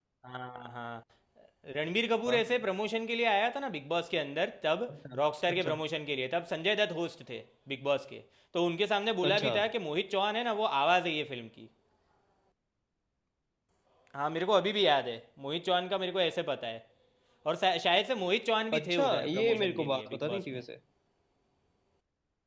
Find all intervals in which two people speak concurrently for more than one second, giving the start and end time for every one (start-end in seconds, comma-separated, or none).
18.7-20.6